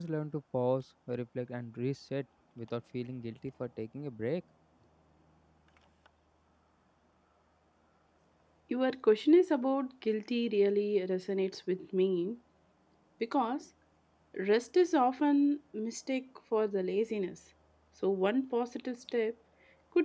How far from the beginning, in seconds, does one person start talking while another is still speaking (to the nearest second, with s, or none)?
none